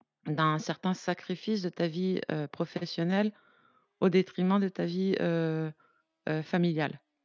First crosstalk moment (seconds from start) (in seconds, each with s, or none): none